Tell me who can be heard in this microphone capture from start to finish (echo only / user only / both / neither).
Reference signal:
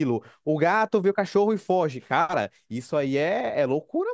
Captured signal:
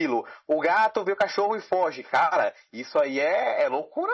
echo only